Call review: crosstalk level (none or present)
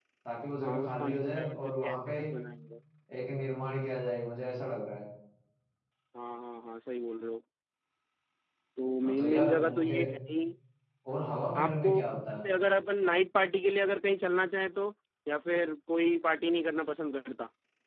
present